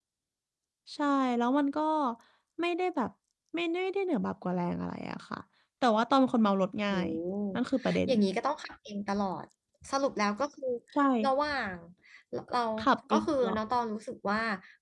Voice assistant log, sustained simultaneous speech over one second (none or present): none